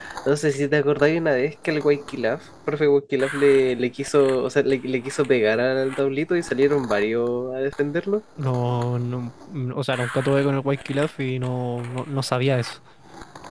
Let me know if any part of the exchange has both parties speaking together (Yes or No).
No